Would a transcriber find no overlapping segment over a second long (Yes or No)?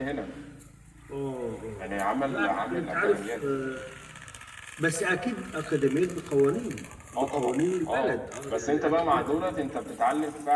No